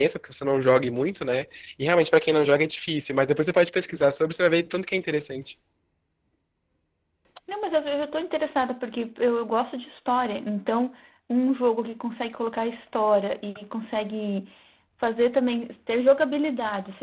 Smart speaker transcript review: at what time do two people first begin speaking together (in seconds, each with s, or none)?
none